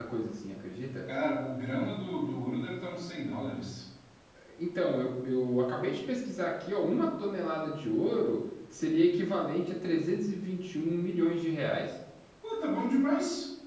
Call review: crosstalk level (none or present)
none